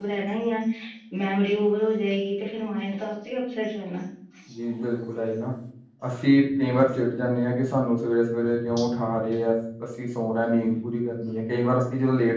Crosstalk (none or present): none